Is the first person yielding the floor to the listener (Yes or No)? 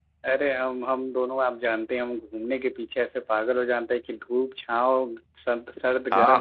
Yes